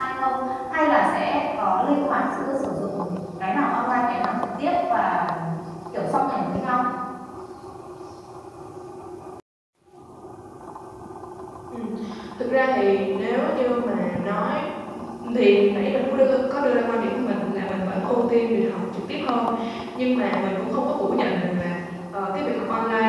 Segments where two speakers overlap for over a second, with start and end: none

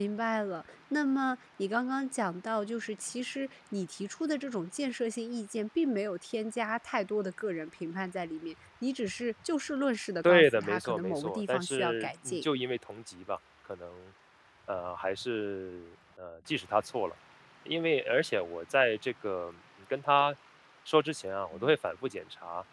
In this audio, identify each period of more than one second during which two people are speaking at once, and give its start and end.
10.2-12.4

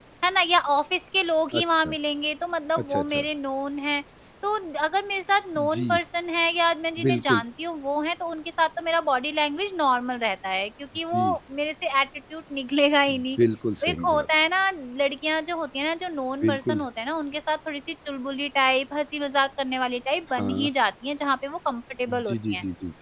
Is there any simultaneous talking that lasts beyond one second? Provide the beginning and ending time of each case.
none

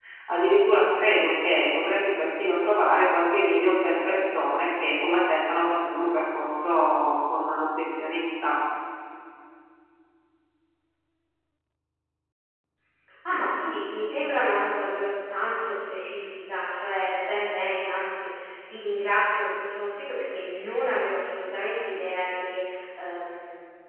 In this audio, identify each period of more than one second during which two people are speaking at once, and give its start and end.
none

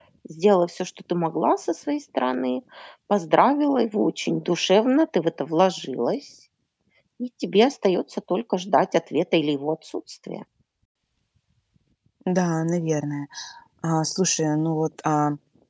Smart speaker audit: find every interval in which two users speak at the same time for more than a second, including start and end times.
none

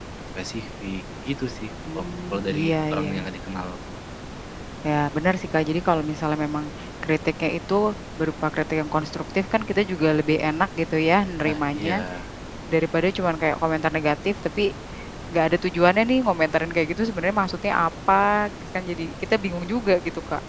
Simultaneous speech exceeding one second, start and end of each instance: 2.0-3.2

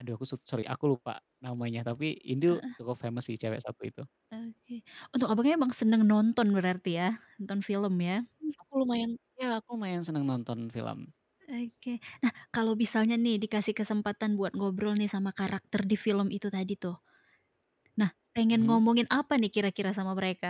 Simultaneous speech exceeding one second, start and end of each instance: none

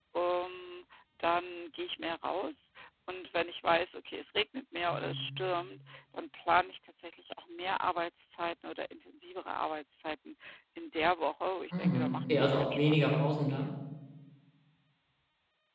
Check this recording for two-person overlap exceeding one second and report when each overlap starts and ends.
11.7-13.7

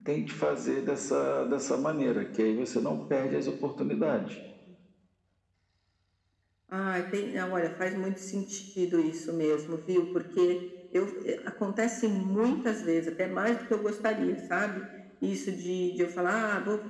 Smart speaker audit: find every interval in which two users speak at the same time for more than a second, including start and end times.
none

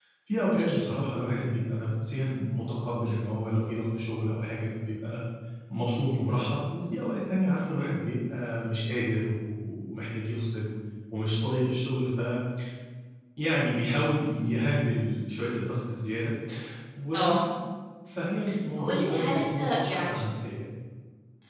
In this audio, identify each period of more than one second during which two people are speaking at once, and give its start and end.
18.8-20.2

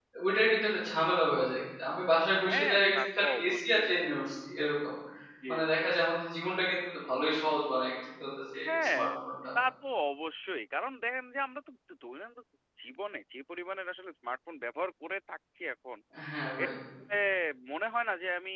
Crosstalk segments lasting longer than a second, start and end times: 2.5-3.9

